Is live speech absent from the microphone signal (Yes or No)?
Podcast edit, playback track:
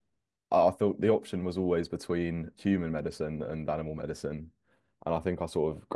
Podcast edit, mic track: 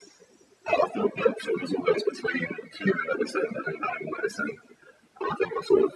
Yes